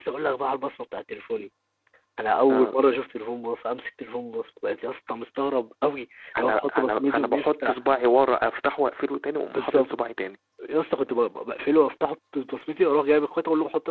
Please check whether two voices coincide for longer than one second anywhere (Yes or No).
Yes